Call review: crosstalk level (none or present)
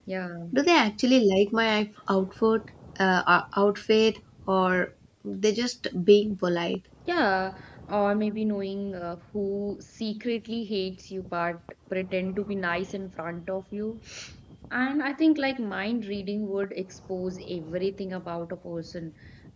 none